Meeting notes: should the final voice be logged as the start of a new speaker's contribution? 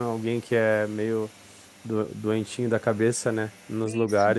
Yes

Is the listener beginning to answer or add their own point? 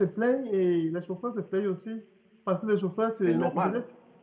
No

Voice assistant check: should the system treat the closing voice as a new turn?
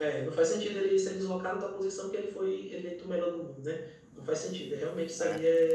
No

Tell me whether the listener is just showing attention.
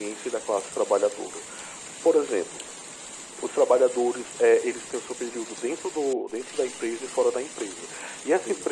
Yes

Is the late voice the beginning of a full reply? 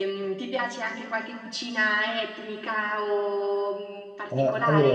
Yes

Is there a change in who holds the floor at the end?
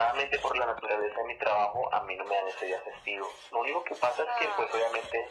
No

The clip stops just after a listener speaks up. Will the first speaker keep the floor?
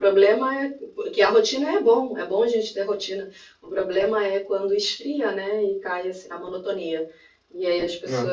Yes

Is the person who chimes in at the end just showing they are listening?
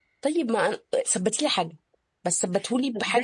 No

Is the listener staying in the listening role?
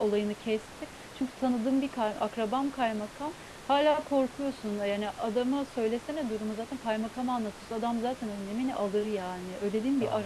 No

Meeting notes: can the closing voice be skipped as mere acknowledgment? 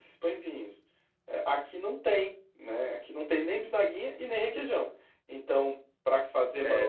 No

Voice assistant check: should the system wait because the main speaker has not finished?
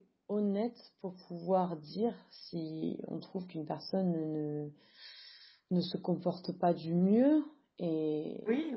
Yes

